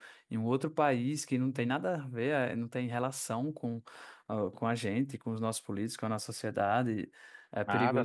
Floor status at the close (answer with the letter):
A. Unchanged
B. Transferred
B